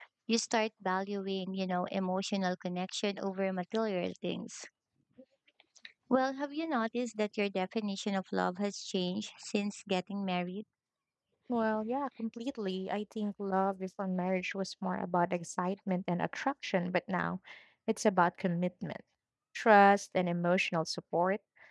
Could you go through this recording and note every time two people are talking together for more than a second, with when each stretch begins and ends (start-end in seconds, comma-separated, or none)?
none